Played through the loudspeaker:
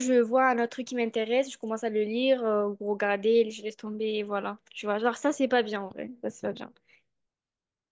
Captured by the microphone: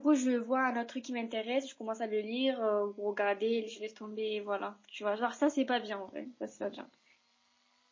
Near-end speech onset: none

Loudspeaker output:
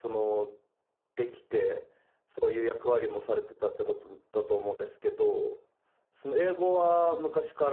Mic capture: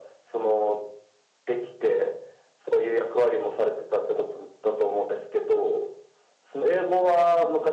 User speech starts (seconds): none

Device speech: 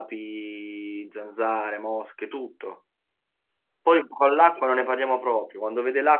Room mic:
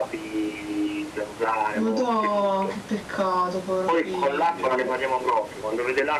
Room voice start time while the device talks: 1.8 s

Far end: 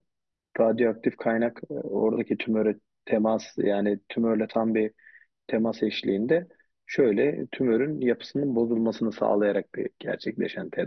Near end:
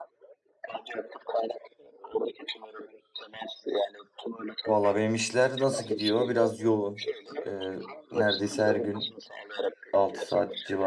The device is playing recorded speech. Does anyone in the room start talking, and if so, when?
4.6 s

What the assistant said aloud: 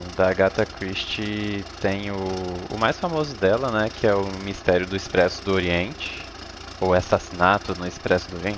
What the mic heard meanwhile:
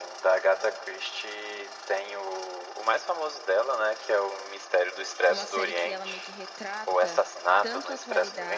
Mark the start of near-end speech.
5.3 s

